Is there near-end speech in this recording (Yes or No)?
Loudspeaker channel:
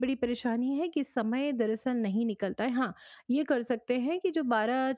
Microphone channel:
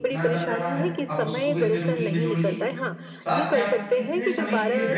Yes